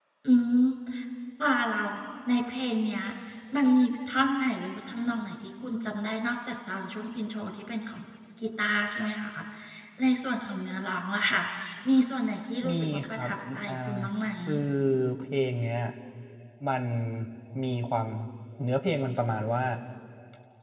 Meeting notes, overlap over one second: present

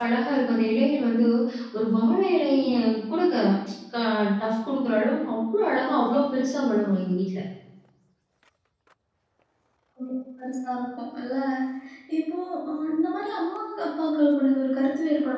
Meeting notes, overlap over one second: none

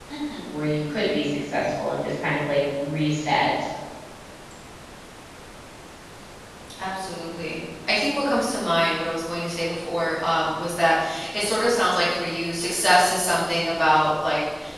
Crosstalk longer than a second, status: none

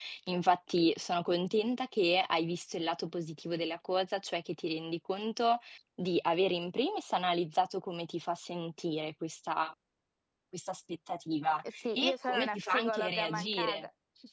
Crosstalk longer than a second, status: present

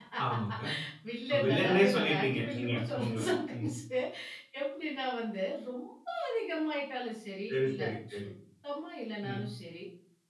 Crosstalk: present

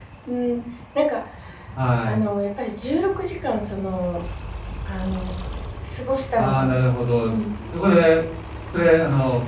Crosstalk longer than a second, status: none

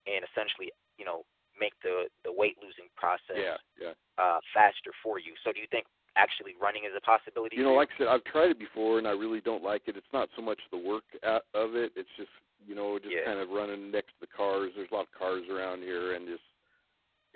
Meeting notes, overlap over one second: none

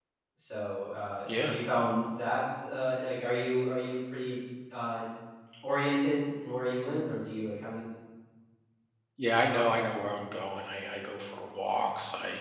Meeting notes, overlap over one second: none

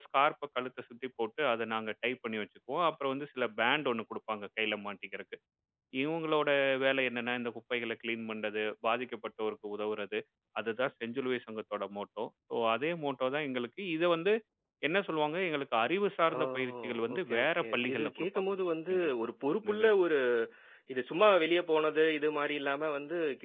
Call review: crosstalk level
present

